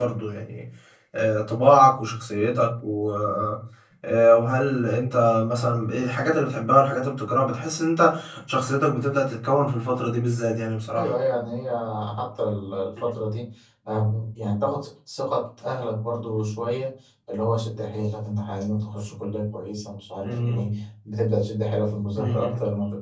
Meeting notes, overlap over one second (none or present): none